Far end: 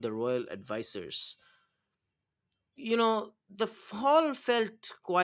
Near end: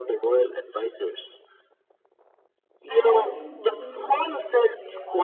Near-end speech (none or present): present